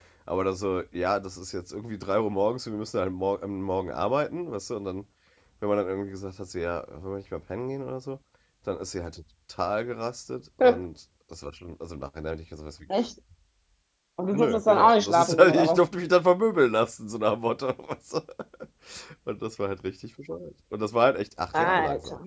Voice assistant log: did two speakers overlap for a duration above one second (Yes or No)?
Yes